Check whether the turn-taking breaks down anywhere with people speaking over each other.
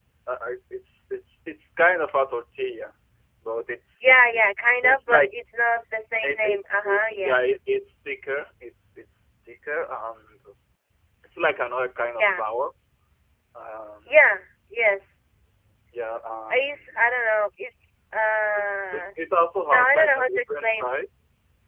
Yes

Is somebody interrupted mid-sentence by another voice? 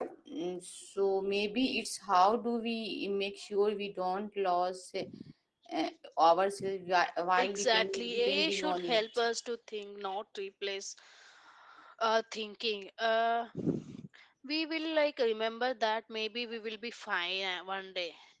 Yes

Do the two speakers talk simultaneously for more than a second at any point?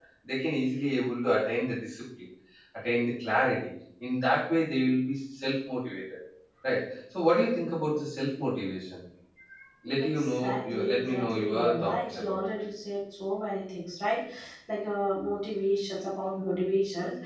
Yes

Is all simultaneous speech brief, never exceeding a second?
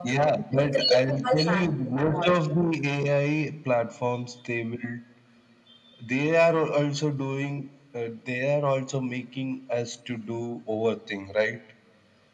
No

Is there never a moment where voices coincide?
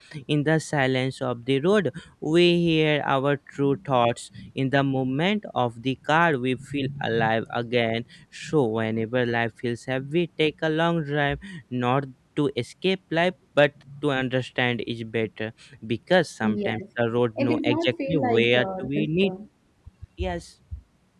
No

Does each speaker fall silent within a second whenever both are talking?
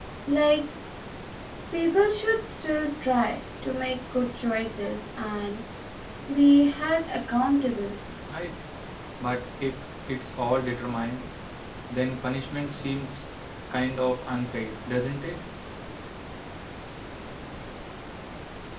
Yes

